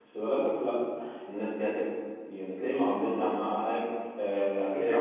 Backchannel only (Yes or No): No